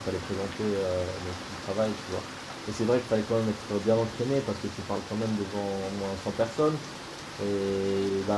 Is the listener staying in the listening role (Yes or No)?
Yes